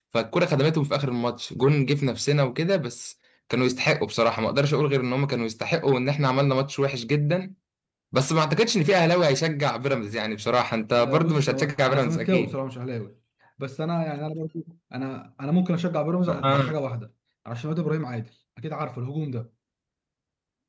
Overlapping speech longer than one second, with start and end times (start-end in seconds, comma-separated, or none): 11.0-12.6